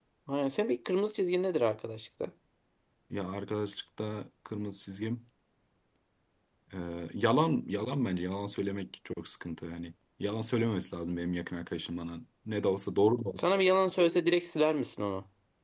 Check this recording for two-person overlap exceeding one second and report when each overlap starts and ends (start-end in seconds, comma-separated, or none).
none